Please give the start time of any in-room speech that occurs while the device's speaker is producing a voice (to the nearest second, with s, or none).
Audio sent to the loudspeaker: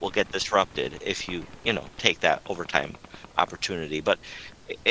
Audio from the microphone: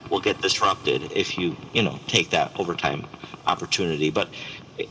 none